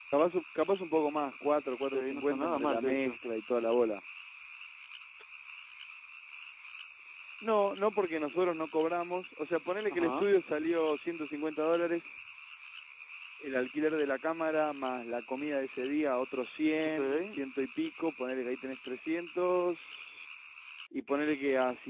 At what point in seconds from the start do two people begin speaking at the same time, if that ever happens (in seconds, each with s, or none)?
1.9 s